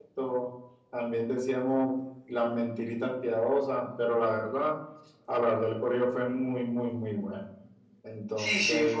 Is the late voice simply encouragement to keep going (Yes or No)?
No